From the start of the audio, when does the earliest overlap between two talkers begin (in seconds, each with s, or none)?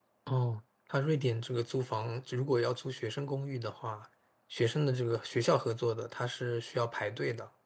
none